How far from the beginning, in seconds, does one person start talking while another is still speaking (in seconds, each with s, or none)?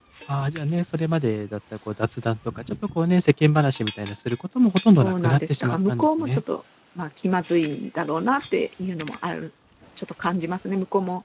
5.0 s